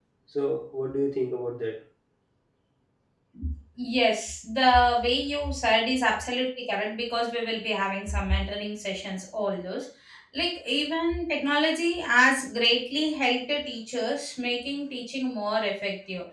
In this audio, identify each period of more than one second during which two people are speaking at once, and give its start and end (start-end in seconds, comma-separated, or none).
none